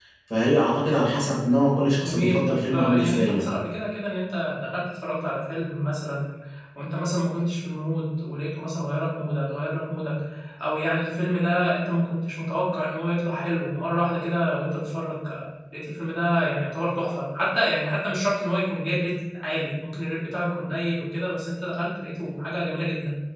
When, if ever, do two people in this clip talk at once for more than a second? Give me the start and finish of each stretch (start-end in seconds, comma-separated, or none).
2.0-3.5